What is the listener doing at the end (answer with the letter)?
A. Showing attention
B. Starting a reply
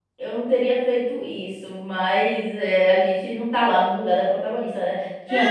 B